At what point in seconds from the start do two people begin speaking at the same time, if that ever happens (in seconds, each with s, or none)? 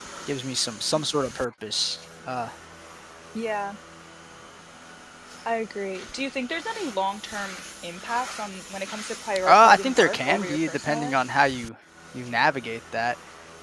9.4 s